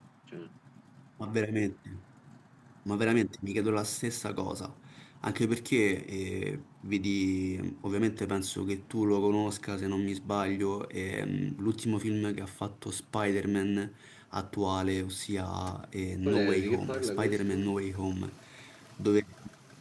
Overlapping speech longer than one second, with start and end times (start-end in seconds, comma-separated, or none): 16.2-17.7